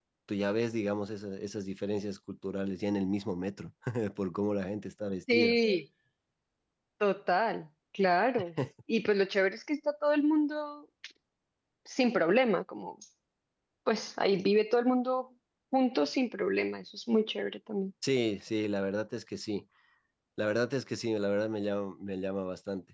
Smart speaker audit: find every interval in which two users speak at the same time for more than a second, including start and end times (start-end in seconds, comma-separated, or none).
none